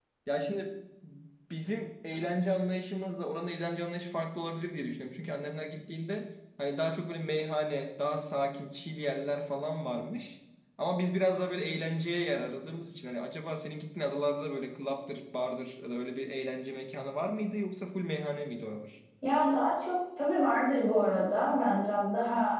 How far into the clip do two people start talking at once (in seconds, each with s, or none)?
none